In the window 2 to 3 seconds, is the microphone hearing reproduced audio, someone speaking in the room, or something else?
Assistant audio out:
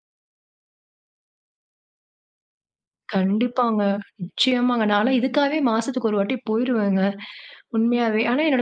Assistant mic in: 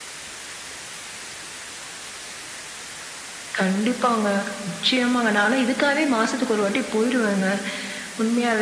neither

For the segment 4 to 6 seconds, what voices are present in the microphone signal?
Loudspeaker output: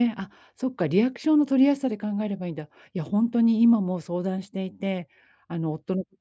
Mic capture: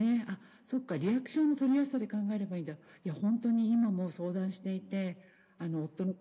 echo only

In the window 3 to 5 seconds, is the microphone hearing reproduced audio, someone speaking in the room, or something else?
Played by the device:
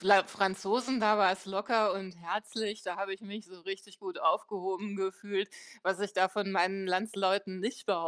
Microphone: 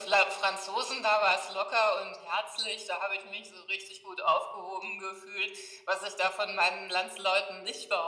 echo only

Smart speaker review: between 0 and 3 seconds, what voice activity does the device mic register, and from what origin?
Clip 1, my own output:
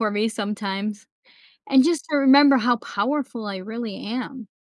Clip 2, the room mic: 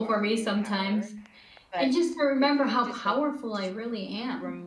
both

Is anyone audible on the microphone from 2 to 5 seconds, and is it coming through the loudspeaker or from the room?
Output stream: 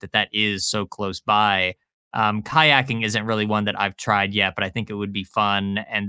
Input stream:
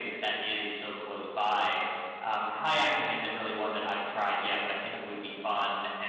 echo only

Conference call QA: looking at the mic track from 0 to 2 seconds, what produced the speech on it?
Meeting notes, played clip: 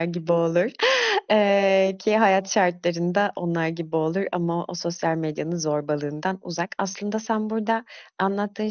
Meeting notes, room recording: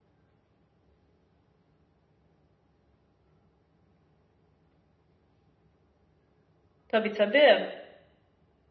neither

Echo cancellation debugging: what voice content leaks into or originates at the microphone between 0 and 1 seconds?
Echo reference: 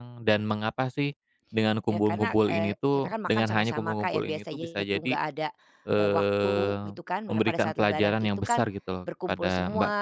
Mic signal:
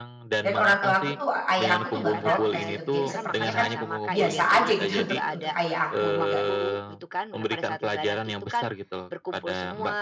both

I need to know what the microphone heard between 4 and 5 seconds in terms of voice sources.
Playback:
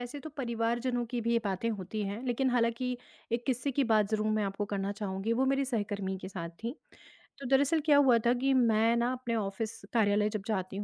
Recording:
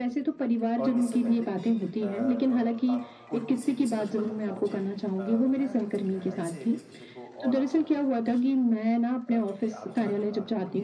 both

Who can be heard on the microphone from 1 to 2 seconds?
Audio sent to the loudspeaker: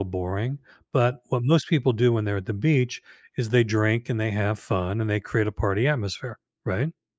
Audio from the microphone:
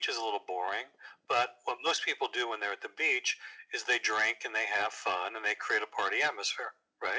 echo only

